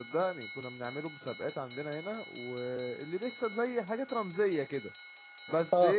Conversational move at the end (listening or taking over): taking over